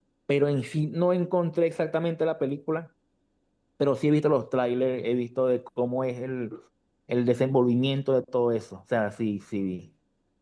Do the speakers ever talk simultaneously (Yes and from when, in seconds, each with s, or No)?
No